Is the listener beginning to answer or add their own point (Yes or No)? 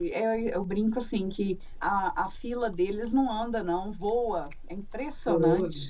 Yes